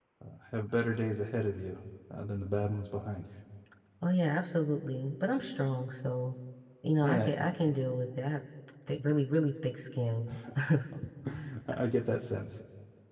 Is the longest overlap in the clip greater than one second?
No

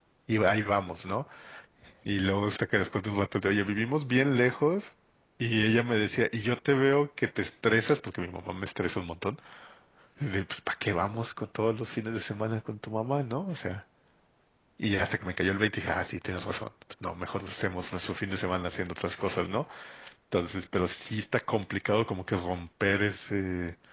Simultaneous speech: No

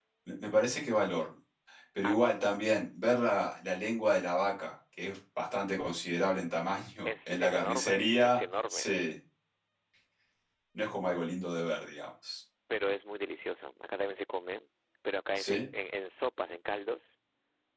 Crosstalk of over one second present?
Yes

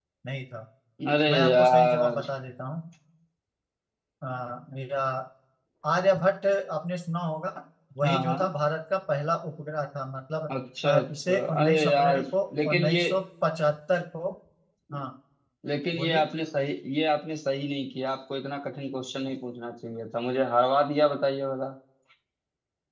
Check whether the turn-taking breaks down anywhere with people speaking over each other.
Yes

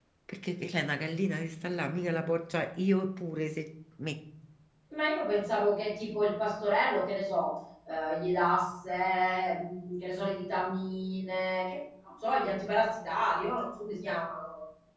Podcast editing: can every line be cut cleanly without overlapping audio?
Yes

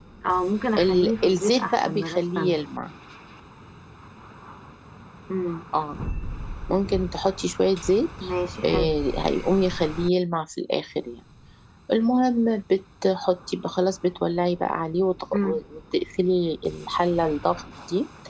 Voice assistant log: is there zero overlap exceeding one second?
No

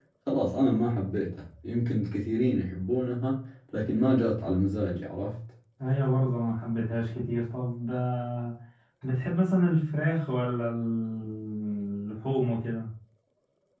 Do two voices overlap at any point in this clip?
No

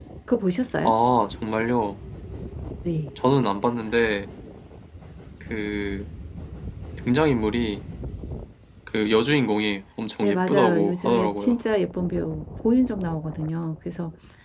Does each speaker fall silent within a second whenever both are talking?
No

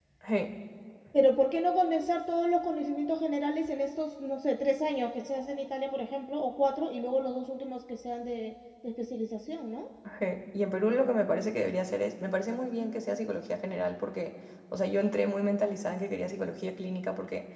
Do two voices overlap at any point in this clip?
No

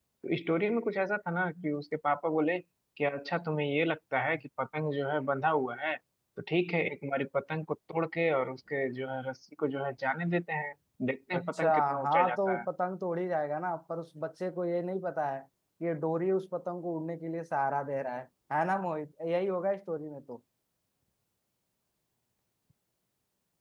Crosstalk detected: Yes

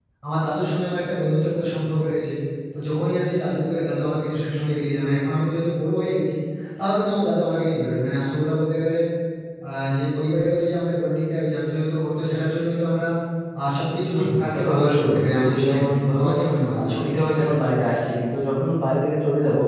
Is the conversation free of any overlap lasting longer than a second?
No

